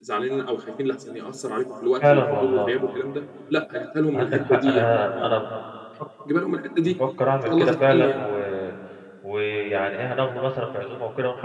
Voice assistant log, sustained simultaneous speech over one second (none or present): present